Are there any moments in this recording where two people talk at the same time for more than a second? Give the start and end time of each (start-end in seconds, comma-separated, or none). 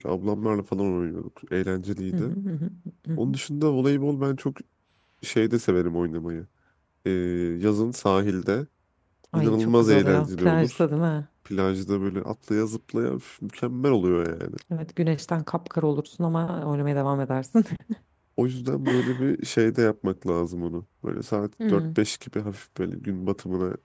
9.3-10.8